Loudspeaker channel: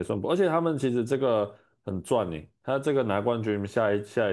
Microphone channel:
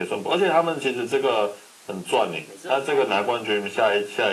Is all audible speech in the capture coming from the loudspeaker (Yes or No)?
No